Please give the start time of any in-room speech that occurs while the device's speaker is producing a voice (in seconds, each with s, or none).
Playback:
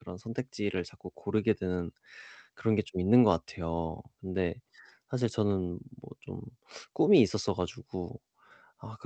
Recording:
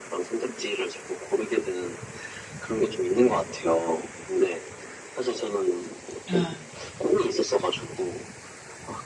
6.3 s